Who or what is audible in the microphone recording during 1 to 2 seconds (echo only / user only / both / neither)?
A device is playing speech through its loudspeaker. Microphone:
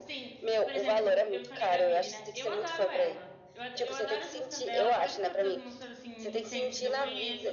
both